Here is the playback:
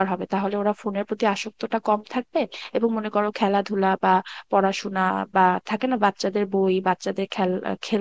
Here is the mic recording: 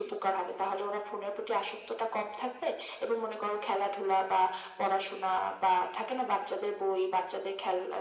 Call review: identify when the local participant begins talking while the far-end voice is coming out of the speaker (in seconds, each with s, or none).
none